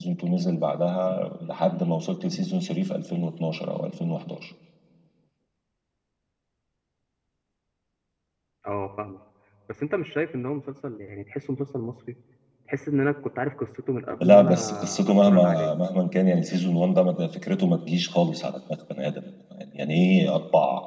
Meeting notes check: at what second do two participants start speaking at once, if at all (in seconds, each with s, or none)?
14.2 s